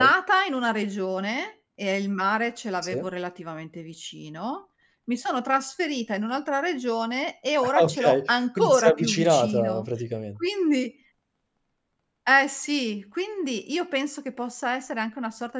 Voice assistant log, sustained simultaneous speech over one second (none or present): present